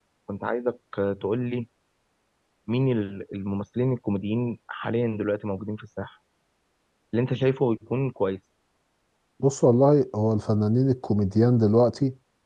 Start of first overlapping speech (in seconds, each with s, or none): none